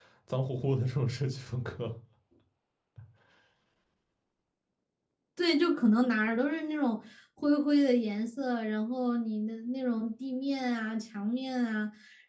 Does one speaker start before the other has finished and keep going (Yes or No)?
No